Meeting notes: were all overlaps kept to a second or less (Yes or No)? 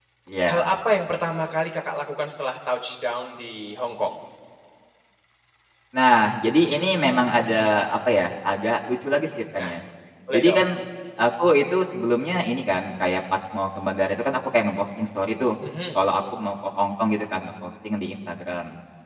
Yes